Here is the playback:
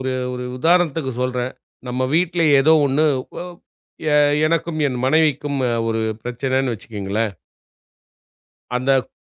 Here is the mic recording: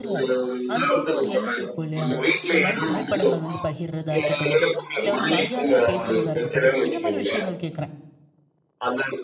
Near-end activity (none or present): present